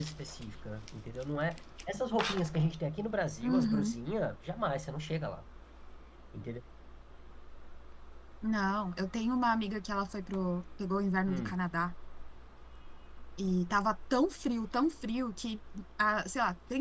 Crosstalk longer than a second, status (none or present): none